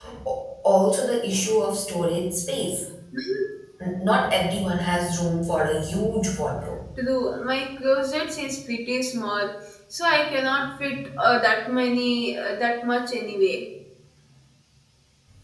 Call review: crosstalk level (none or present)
none